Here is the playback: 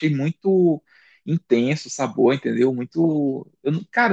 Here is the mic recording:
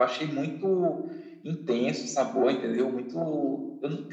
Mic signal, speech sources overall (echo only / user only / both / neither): echo only